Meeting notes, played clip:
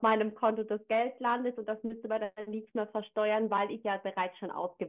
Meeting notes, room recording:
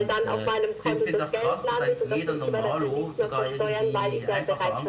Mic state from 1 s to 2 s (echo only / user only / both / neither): both